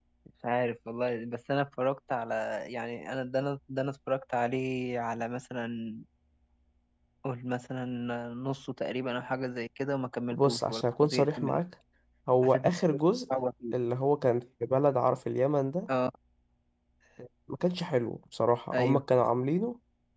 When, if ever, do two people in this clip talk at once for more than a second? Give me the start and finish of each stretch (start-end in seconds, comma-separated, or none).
10.3-11.6